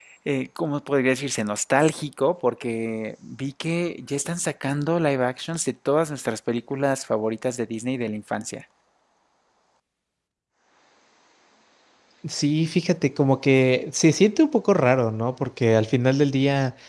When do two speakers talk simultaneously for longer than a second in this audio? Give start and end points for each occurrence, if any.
none

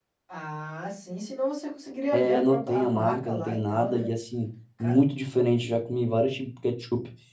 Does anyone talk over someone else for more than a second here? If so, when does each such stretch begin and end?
2.1-4.1

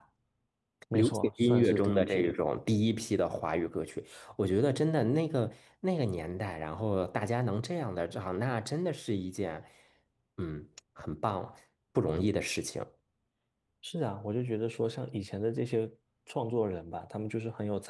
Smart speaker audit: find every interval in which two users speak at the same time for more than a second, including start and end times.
0.9-2.3

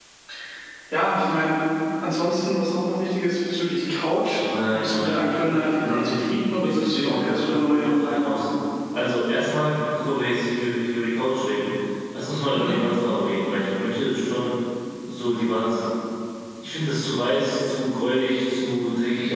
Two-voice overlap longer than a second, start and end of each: 4.3-8.4

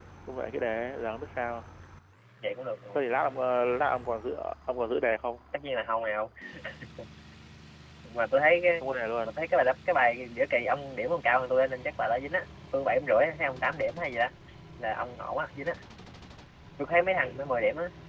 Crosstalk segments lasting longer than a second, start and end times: none

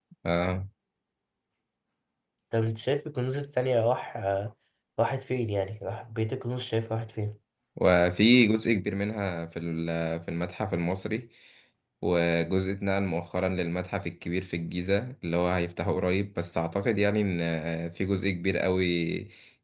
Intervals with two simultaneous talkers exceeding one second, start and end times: none

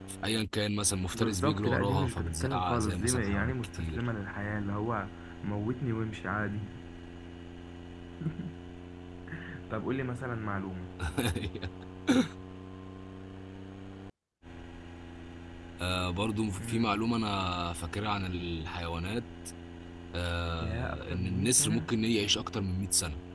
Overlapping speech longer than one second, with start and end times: 1.1-4.1, 20.6-21.9

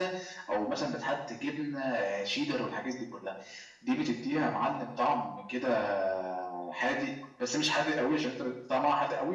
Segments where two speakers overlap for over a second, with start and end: none

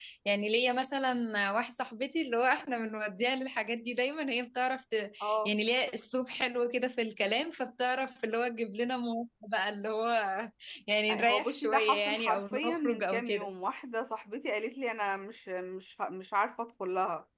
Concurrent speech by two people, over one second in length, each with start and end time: 11.1-13.5

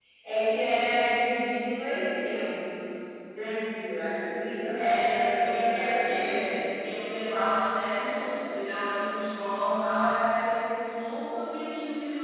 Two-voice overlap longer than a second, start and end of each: 4.8-6.5

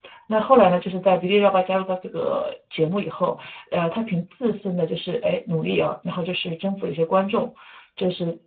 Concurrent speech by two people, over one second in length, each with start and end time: none

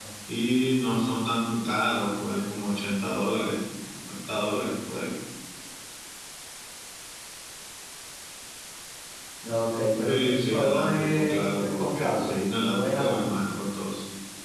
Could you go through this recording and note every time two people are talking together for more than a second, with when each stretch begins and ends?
10.1-13.6

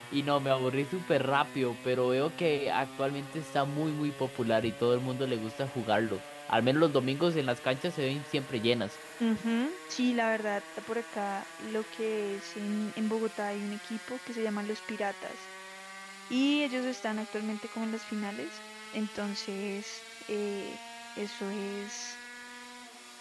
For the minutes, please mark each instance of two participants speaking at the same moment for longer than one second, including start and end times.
none

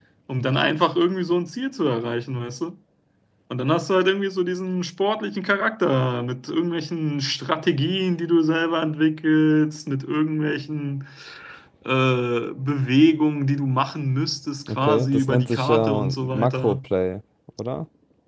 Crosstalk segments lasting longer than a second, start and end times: 14.7-16.8

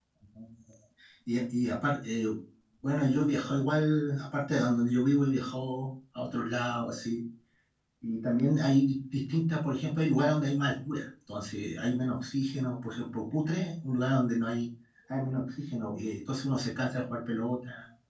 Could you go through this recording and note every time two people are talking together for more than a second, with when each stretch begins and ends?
none

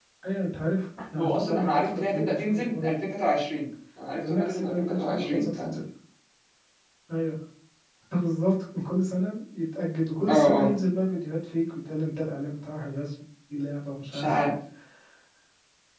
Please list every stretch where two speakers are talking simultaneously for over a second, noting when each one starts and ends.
1.2-3.1, 4.2-5.8

